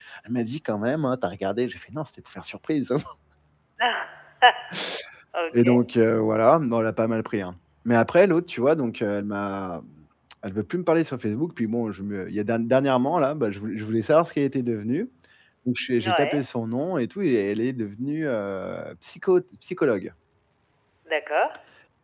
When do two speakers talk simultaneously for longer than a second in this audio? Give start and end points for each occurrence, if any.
none

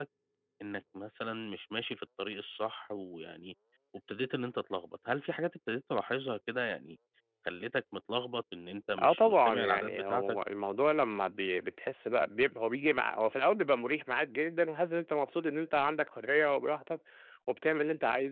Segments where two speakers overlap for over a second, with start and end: 9.0-10.4

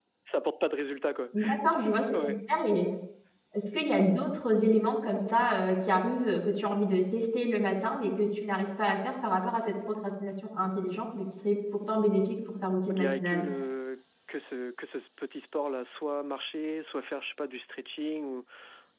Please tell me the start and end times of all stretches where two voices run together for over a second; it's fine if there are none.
none

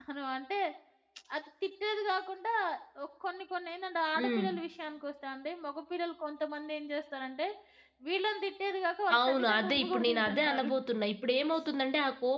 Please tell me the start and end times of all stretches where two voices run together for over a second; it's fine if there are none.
9.3-10.7

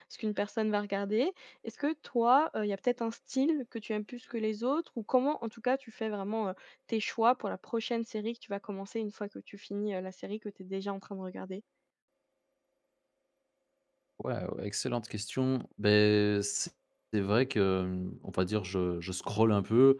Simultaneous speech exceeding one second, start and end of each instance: none

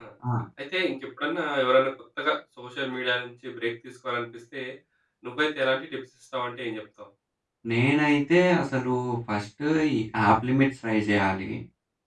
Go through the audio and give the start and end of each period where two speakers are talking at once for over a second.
none

